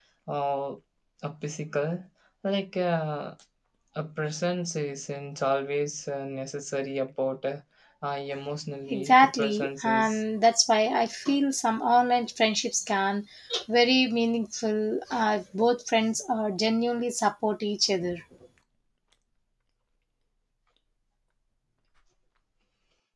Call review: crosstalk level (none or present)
present